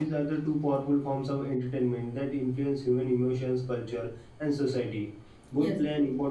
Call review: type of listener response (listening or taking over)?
listening